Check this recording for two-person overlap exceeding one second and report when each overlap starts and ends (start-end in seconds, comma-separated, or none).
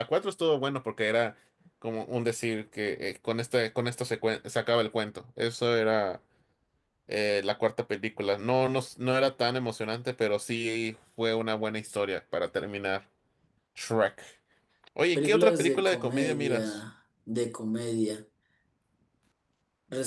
15.2-16.8